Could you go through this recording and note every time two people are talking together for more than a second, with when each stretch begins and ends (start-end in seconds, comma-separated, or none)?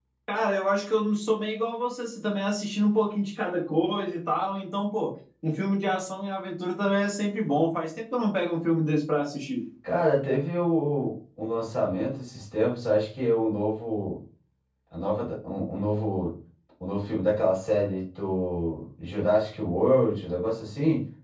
none